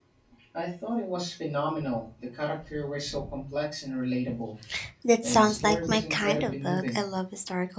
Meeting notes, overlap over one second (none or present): present